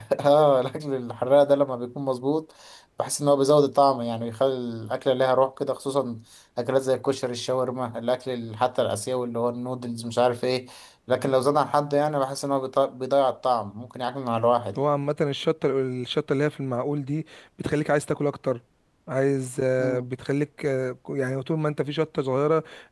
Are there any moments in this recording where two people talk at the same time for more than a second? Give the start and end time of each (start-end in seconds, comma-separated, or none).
none